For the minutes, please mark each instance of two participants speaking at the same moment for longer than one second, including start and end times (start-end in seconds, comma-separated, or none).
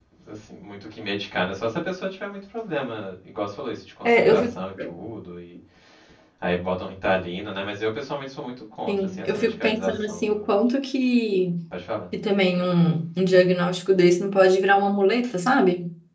8.9-10.4